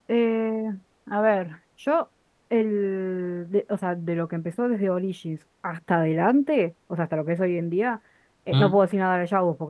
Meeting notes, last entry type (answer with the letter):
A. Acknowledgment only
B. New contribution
A